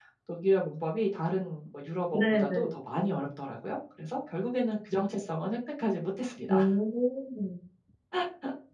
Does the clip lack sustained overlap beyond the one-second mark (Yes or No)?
Yes